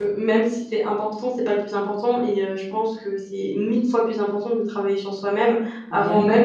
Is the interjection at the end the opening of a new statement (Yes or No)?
No